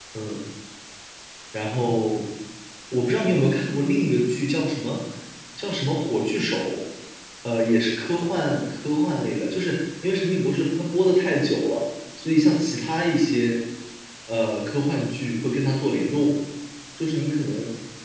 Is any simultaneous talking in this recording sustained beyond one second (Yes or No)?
No